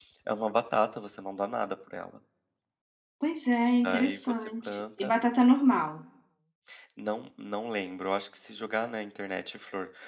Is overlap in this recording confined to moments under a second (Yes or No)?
No